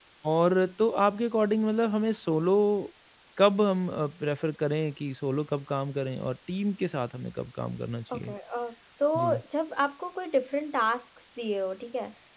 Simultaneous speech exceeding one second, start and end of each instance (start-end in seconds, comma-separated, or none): none